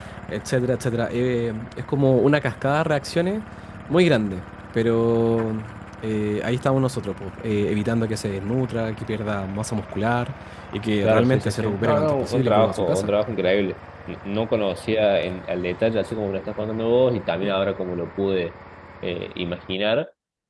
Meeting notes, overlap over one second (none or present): present